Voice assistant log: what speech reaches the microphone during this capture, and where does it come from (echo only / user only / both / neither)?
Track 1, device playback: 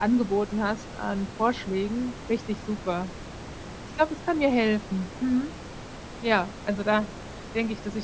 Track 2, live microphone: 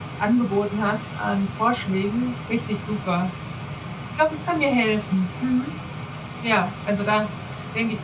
echo only